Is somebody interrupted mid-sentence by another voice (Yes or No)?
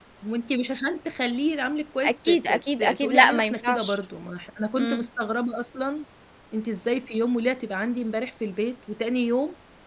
Yes